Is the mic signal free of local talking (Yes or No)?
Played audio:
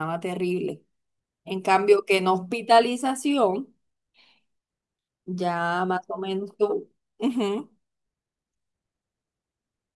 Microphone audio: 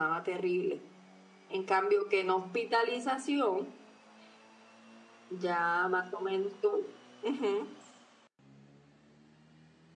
Yes